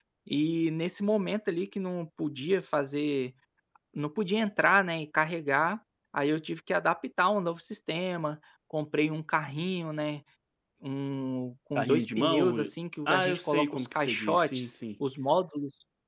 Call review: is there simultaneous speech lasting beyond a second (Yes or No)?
Yes